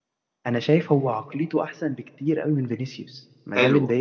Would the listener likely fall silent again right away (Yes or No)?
No